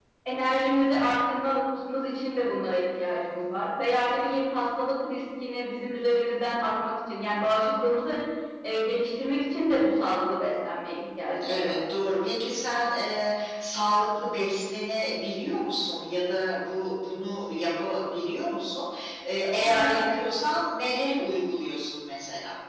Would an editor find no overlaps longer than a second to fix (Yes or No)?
Yes